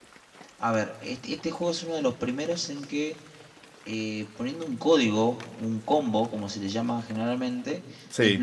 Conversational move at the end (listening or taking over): listening